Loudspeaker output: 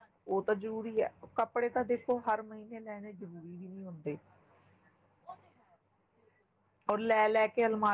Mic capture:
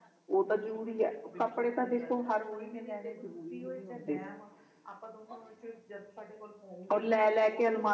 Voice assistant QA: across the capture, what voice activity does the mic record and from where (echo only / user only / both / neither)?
both